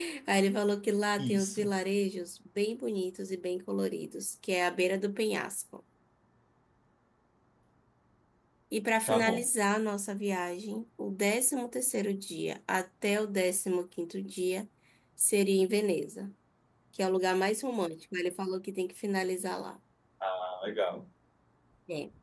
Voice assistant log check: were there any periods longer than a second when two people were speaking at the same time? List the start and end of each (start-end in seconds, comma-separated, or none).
none